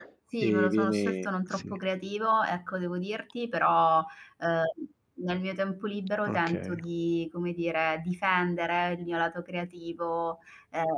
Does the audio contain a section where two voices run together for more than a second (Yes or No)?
Yes